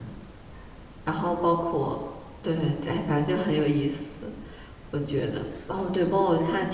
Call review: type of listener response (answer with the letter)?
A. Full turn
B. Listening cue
B